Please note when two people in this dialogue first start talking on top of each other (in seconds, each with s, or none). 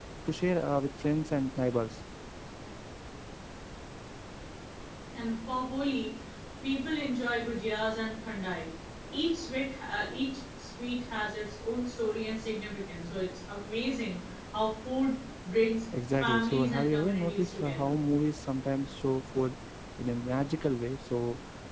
16.2 s